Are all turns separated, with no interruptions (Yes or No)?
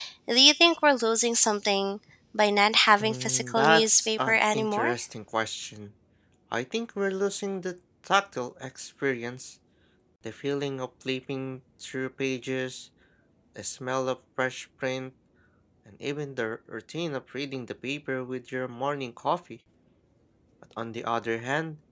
No